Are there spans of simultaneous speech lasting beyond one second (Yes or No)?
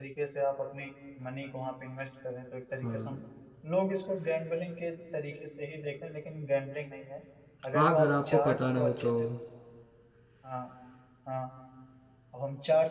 Yes